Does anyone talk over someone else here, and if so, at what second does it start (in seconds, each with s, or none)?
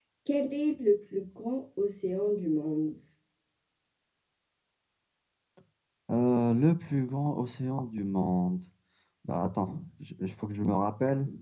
none